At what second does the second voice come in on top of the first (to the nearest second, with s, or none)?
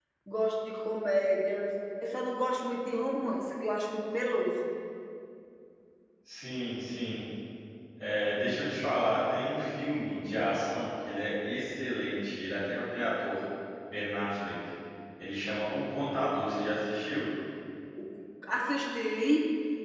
none